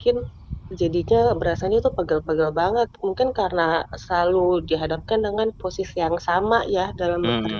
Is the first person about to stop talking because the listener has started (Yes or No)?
Yes